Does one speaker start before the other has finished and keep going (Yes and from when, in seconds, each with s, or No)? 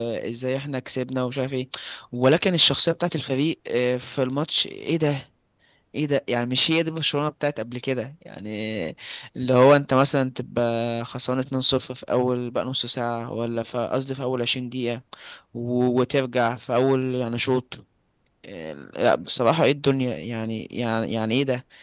No